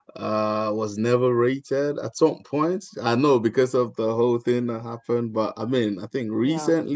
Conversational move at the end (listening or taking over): listening